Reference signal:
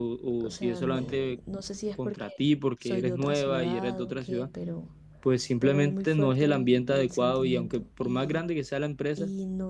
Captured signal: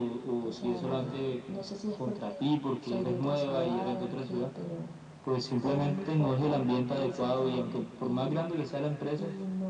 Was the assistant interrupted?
No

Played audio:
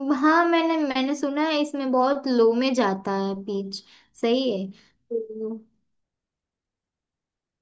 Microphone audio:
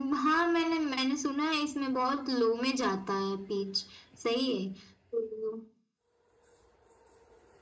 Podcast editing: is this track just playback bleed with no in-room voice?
Yes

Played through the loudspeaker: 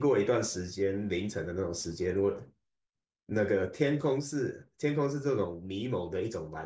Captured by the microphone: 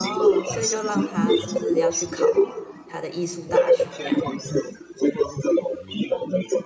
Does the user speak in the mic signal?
Yes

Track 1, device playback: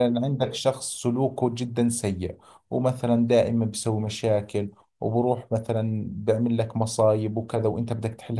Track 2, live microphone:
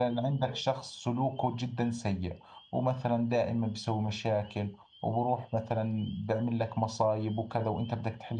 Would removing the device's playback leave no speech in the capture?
Yes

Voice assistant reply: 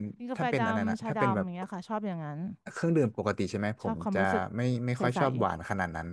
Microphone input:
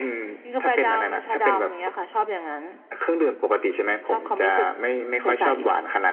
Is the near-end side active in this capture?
No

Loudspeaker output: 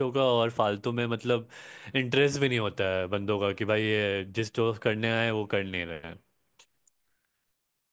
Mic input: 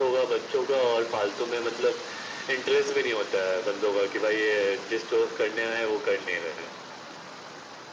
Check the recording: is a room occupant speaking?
No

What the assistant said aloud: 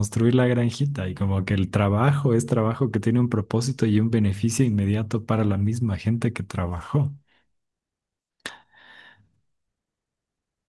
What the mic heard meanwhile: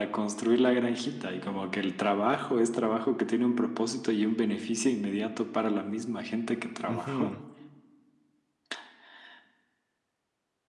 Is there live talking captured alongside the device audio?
Yes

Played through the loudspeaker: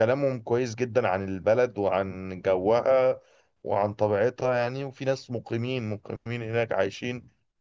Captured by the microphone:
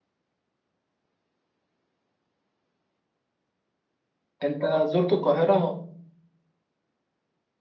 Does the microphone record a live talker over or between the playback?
Yes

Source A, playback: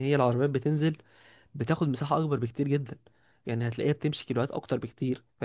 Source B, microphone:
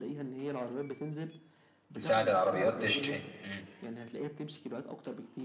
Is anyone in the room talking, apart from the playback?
Yes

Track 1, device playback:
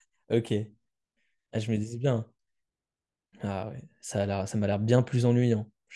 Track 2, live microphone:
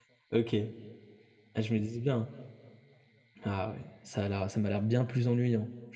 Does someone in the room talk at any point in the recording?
No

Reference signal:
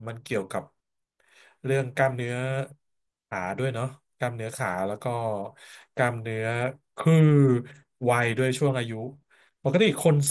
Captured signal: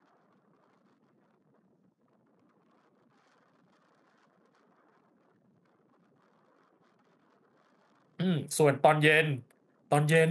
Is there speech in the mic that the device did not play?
Yes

